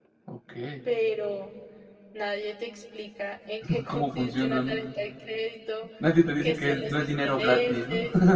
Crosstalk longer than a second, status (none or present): present